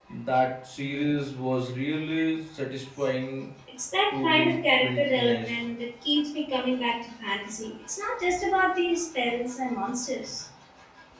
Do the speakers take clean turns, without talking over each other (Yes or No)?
No